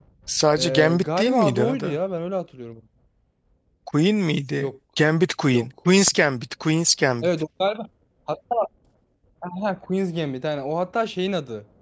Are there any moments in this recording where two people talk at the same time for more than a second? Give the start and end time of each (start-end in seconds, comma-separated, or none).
0.6-2.0